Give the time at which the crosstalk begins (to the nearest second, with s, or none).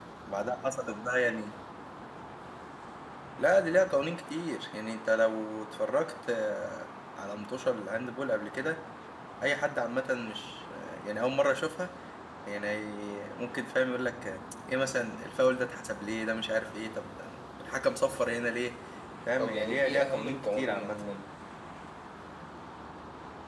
19 s